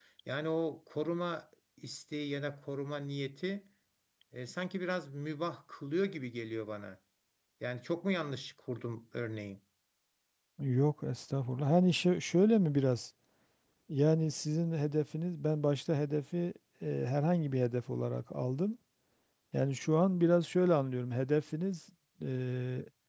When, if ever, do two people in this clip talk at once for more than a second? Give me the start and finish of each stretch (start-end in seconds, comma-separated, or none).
none